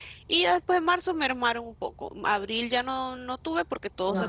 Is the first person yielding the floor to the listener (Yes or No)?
No